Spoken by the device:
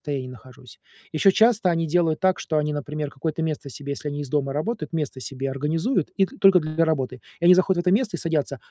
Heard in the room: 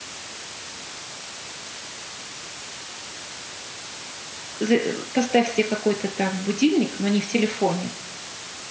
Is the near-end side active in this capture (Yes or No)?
Yes